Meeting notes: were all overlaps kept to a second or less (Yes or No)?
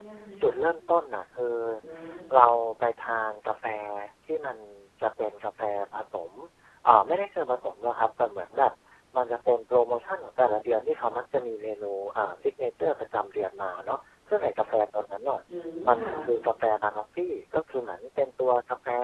Yes